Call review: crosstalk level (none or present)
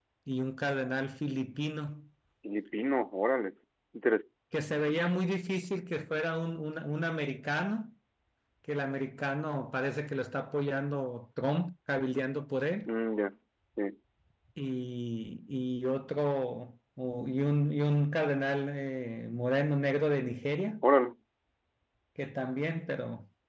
none